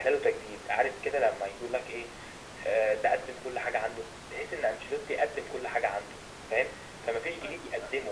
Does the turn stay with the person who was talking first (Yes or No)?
Yes